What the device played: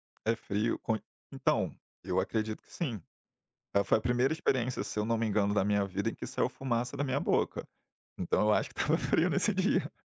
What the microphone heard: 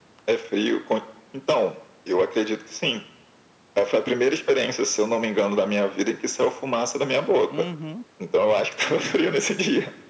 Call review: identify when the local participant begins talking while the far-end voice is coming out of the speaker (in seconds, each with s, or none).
7.5 s